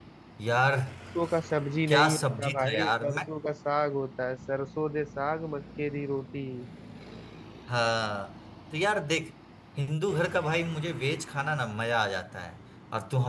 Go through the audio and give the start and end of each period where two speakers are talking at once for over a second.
1.9-3.3

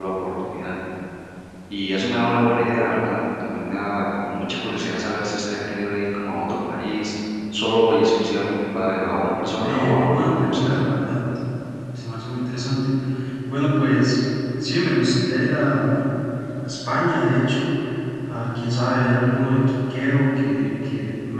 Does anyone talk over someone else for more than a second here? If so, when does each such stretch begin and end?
9.6-10.9

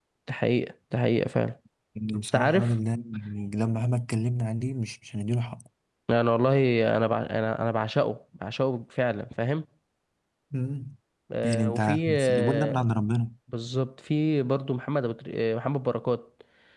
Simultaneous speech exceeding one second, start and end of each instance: 11.4-12.9

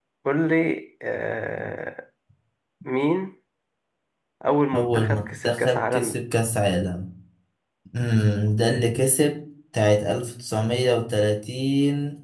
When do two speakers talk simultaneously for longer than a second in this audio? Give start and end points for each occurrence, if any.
4.7-6.2

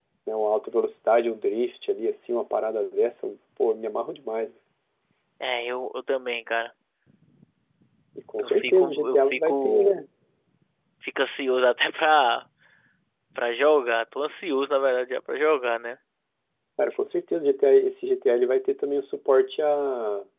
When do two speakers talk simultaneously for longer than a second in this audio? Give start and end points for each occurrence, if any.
8.4-9.9

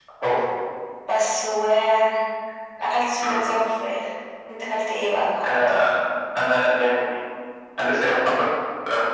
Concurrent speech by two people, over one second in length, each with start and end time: none

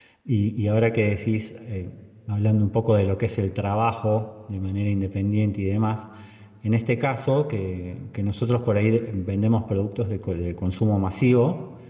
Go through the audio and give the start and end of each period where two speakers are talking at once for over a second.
none

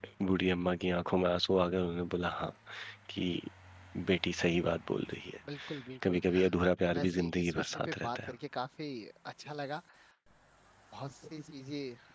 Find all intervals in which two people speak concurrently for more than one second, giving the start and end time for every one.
6.9-8.3

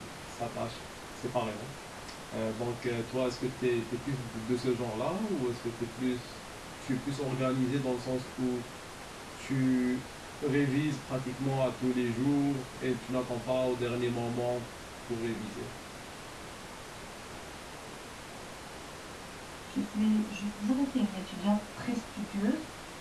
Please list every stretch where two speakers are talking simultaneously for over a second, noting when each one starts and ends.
none

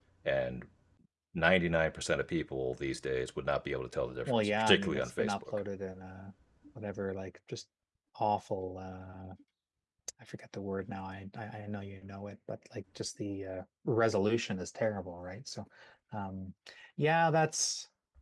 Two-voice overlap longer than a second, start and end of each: 4.3-5.6

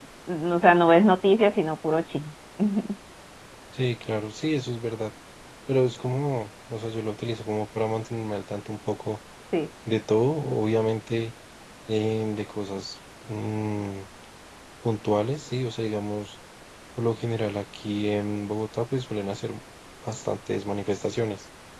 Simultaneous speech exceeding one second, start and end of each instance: none

